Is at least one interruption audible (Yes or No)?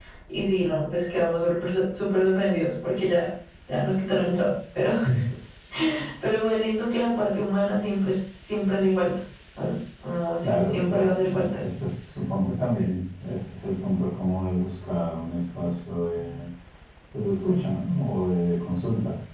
Yes